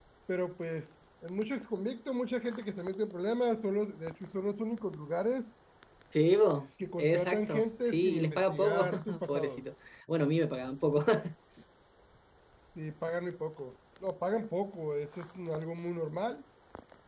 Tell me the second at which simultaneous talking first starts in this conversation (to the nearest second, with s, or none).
7 s